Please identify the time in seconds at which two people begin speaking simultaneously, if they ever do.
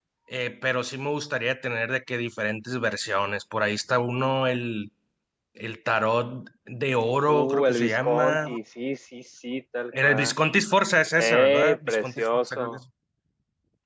7.2 s

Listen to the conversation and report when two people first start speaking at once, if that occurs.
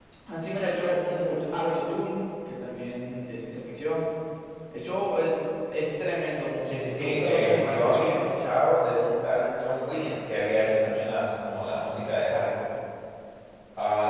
6.6 s

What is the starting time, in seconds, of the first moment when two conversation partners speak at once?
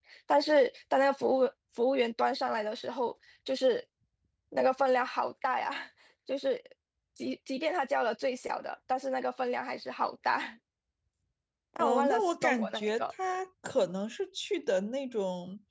11.8 s

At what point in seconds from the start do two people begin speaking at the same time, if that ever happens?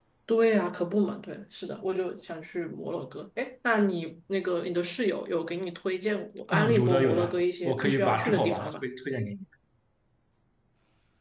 6.5 s

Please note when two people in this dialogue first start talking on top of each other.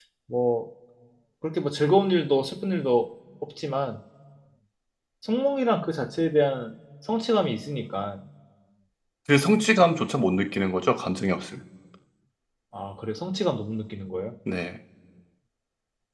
none

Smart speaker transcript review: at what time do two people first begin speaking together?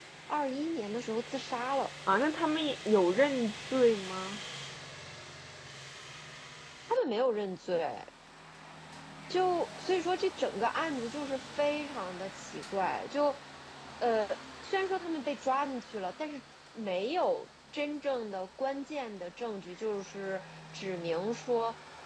none

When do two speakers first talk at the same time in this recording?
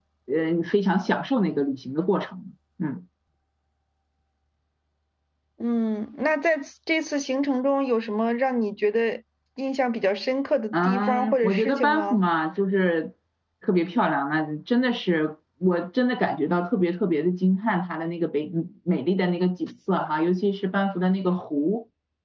10.7 s

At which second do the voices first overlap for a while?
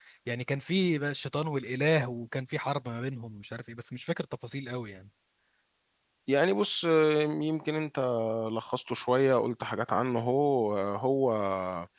none

